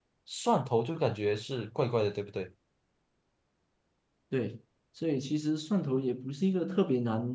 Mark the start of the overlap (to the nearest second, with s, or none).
none